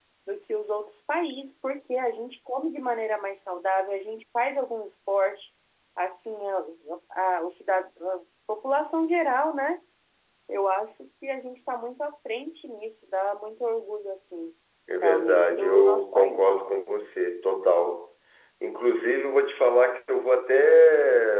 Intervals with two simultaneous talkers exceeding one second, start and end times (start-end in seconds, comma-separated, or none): 15.0-16.5